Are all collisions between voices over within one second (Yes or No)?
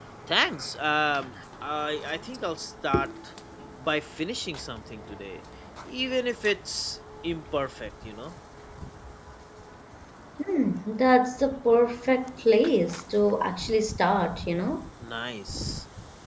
Yes